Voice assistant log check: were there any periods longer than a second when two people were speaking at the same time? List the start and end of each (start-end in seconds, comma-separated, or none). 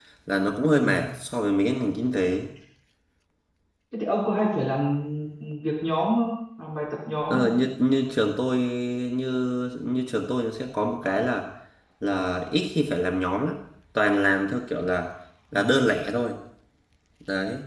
none